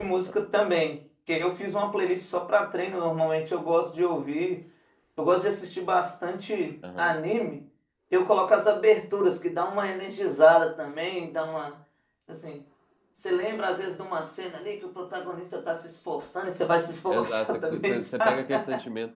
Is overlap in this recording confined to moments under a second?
No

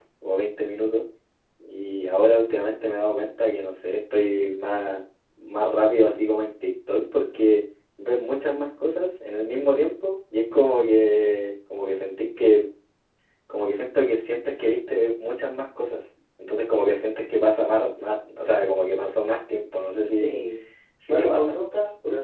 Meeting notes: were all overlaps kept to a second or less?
Yes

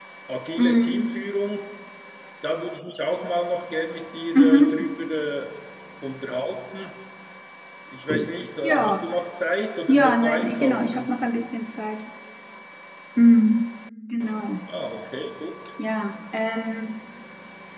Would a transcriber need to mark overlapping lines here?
Yes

